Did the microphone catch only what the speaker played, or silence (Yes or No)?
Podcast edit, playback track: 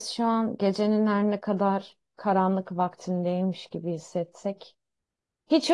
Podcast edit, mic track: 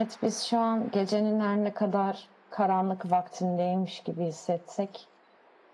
Yes